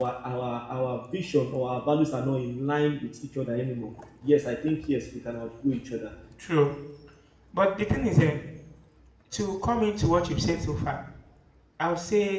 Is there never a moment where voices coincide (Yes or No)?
Yes